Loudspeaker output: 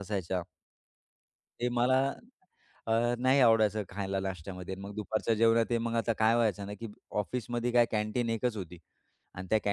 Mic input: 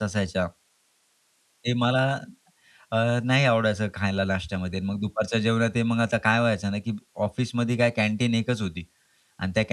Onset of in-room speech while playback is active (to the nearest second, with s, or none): none